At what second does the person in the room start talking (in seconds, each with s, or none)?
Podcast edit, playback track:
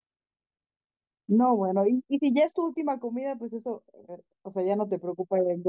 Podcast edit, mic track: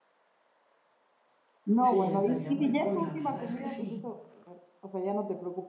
1.8 s